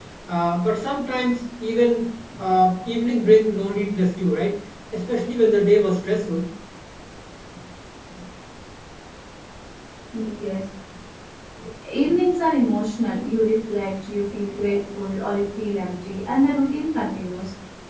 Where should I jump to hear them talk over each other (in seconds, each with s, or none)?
none